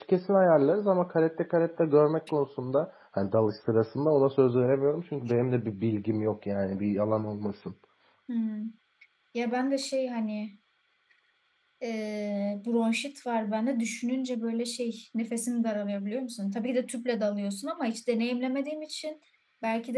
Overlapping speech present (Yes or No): No